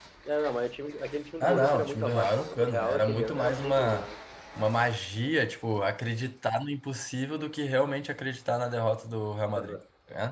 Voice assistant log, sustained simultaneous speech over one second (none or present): present